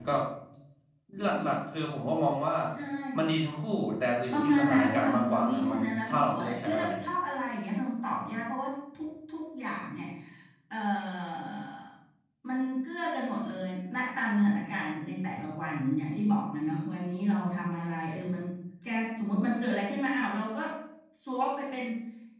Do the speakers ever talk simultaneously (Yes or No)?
Yes